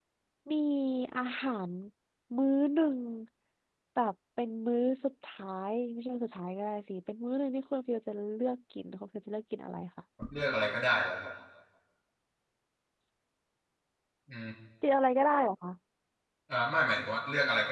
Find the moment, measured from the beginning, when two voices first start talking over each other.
none

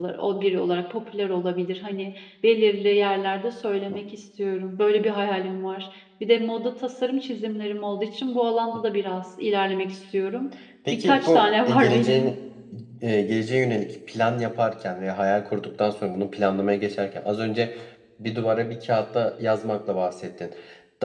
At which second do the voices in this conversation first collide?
11 s

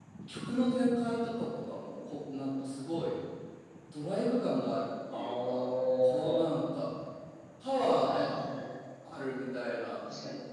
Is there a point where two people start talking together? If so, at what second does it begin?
5 s

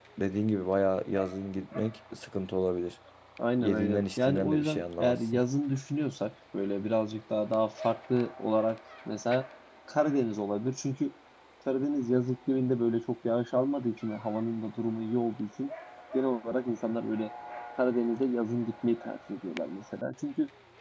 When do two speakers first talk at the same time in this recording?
4 s

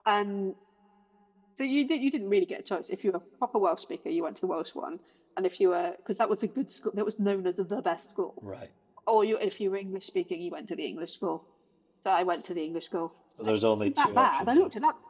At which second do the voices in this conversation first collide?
13 s

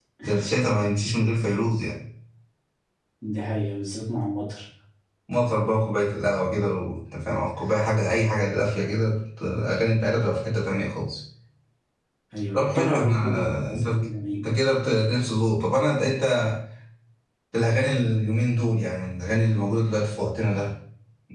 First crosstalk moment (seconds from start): 13 s

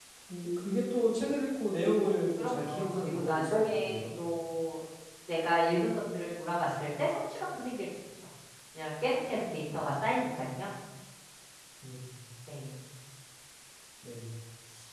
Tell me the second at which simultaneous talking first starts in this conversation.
2 s

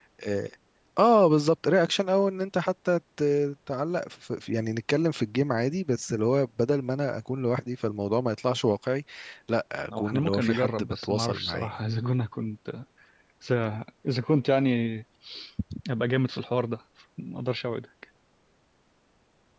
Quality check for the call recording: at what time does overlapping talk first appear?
10 s

